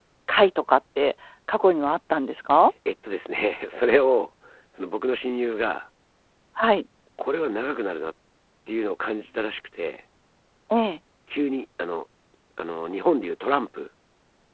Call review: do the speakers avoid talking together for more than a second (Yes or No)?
Yes